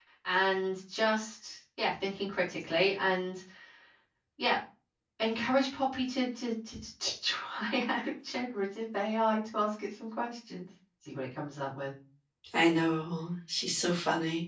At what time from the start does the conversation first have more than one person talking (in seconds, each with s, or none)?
none